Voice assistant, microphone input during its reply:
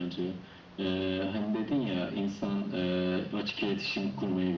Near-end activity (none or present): none